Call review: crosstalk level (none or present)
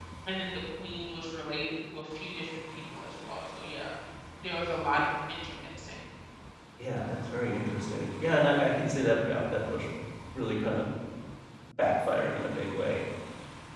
none